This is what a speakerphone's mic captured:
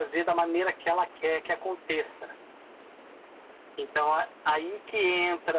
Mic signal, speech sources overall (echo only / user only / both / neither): echo only